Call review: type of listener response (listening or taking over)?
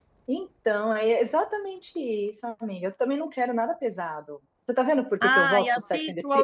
taking over